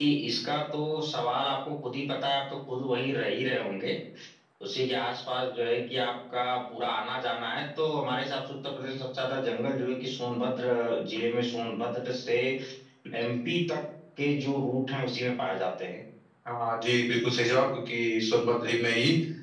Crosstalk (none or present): none